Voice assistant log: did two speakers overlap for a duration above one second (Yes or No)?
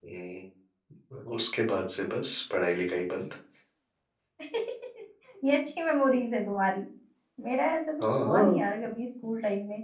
No